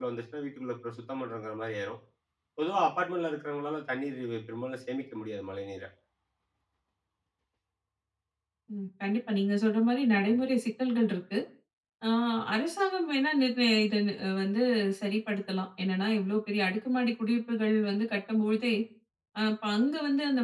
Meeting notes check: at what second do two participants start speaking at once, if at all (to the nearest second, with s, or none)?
none